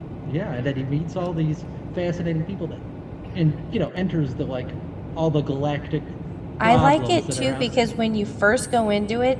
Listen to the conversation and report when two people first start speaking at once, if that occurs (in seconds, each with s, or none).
6.6 s